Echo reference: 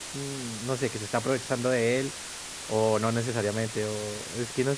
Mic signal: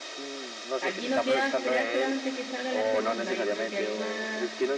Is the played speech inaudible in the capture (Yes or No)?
No